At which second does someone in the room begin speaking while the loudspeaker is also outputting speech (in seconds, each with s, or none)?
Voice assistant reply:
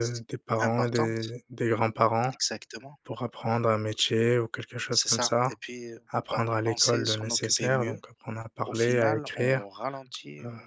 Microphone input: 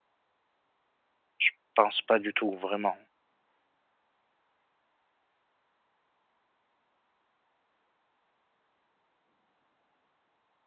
1.4 s